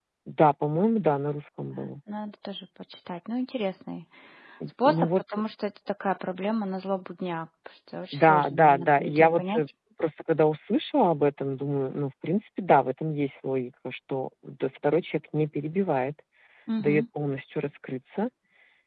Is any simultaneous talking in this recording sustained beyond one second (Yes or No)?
Yes